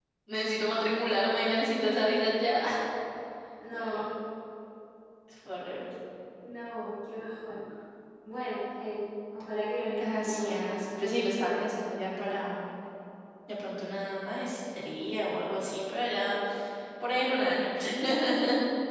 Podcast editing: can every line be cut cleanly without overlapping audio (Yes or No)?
No